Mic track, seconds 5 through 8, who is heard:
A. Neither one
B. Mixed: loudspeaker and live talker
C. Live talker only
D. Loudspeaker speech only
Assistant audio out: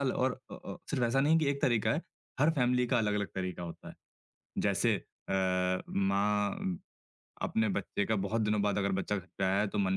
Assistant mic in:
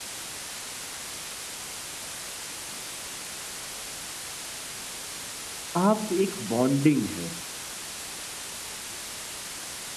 C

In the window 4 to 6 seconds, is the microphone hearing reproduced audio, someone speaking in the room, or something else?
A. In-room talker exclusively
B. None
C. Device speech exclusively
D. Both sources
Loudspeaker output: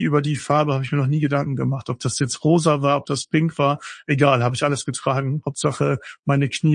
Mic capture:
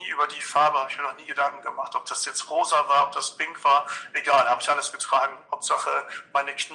C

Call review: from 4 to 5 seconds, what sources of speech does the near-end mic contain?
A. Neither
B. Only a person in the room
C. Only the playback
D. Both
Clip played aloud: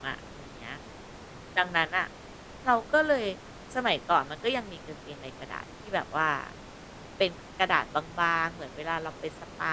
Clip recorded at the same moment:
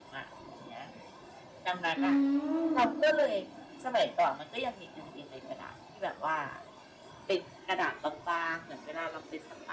C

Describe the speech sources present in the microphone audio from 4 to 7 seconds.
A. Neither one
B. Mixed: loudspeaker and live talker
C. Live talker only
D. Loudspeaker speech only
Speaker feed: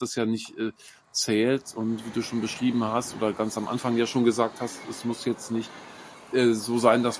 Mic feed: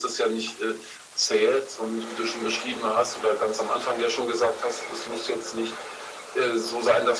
D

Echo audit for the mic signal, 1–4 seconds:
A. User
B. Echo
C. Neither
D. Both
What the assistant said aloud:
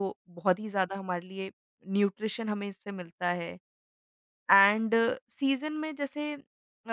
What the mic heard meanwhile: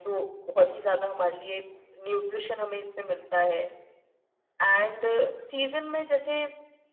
B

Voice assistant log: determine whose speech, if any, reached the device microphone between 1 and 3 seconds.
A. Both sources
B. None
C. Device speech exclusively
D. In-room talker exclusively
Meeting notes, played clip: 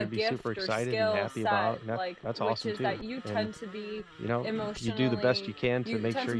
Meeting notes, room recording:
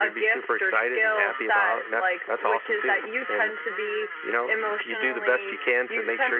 C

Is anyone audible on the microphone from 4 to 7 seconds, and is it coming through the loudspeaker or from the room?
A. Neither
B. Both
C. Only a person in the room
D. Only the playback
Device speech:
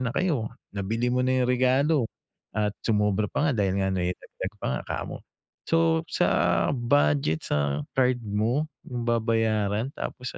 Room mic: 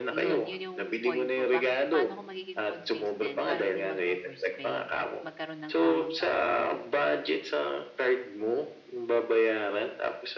B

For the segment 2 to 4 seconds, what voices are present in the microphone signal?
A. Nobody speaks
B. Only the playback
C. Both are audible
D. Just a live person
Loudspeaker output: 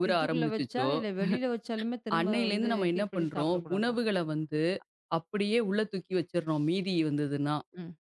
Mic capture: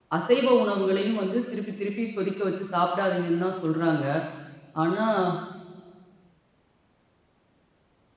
D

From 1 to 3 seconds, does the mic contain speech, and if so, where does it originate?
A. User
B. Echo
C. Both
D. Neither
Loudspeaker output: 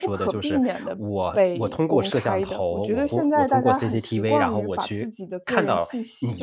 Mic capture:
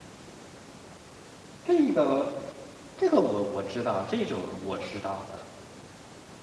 A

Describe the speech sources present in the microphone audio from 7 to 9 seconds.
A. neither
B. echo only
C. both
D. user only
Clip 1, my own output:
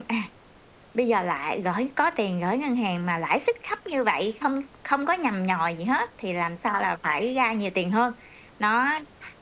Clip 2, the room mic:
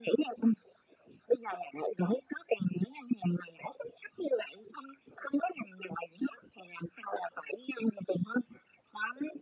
B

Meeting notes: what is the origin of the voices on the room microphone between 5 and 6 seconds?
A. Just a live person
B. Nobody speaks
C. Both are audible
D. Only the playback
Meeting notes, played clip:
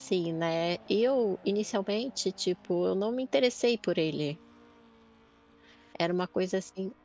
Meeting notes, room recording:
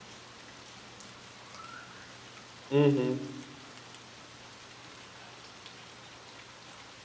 B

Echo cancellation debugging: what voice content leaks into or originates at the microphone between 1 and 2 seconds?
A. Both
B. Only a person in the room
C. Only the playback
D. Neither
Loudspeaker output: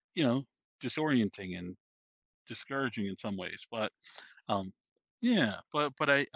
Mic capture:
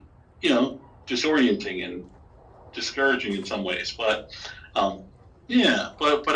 C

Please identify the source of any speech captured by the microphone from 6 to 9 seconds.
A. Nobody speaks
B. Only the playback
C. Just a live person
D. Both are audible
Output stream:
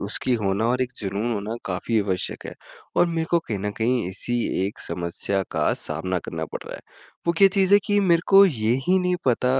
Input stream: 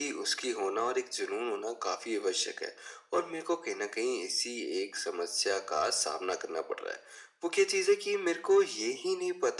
B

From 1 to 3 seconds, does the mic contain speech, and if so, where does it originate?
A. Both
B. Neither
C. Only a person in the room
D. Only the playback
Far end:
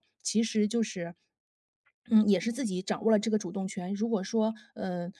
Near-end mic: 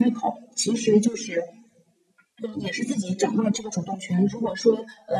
D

